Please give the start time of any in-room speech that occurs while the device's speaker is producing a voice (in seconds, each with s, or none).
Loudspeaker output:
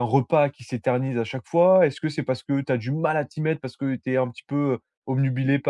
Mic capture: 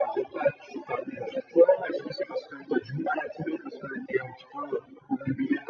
none